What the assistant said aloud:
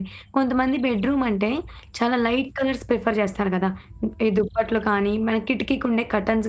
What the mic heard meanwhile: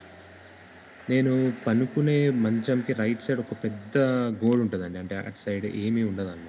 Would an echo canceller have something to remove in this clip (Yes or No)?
No